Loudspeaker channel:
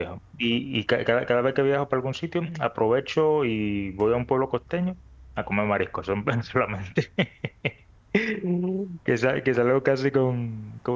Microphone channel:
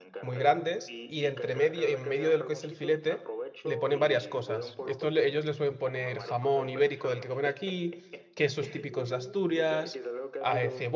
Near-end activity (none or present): present